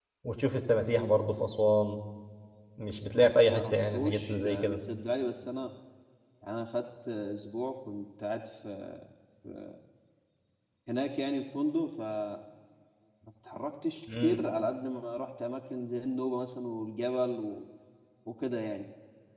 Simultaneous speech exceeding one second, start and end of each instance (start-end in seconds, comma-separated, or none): 3.5-4.8